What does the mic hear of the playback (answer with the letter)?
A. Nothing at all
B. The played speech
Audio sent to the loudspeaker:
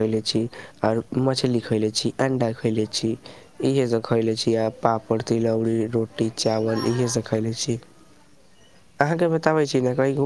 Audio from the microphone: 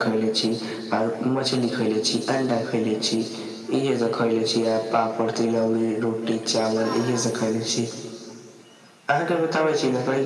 B